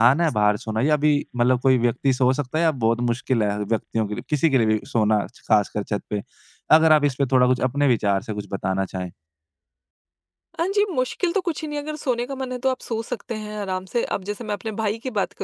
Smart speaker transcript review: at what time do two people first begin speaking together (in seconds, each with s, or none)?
none